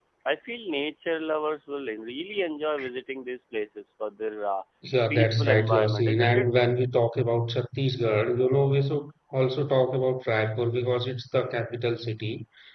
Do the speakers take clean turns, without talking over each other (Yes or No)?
No